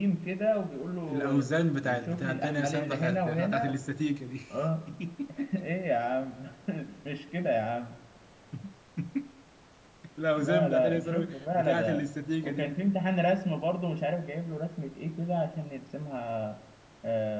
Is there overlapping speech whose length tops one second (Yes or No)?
Yes